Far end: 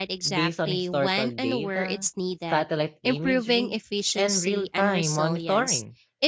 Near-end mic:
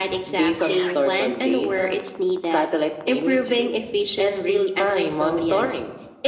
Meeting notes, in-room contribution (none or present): none